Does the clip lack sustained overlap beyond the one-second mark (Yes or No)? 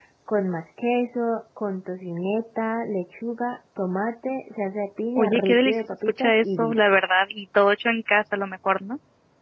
No